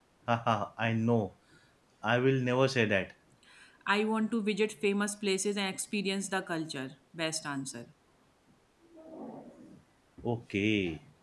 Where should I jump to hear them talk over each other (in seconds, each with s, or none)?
none